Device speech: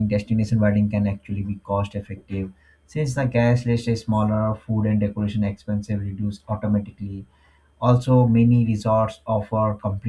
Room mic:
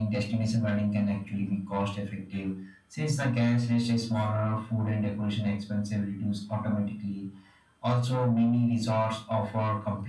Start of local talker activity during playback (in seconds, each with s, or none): none